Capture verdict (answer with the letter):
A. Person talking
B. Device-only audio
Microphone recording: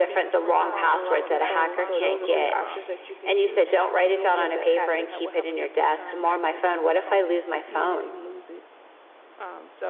A